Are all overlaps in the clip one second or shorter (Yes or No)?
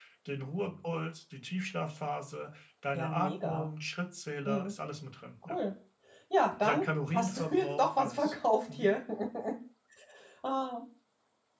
No